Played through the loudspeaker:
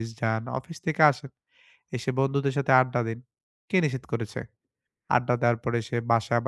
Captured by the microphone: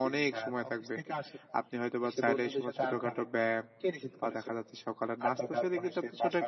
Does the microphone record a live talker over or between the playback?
Yes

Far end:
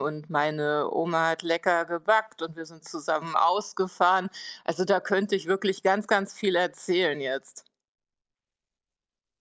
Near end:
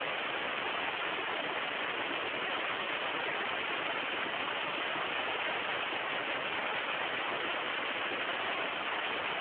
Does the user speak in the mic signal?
No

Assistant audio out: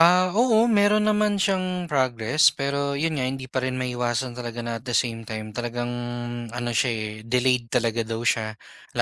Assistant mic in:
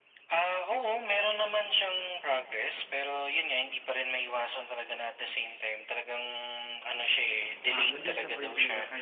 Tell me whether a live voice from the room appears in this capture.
Yes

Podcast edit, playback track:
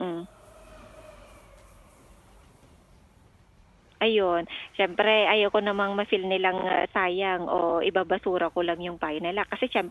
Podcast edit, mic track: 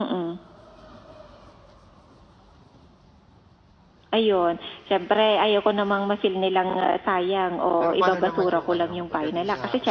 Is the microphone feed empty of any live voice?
No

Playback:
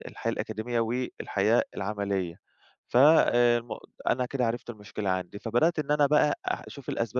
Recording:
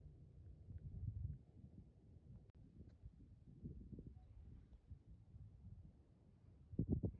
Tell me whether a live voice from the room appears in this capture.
No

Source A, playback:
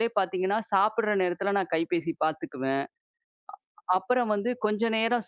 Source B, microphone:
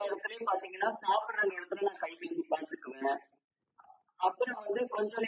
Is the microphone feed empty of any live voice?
Yes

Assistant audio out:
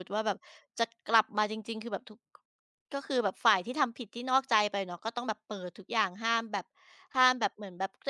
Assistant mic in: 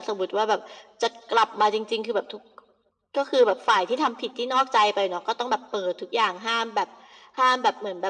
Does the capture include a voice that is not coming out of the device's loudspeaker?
No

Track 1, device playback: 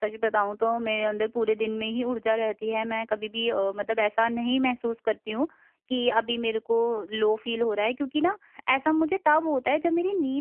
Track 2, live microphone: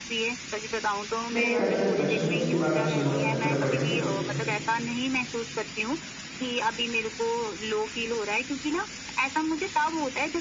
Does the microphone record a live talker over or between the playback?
Yes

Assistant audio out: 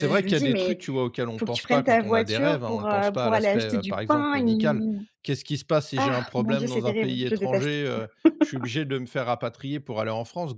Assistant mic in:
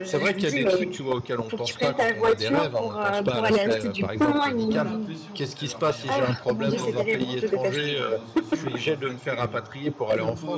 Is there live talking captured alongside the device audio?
Yes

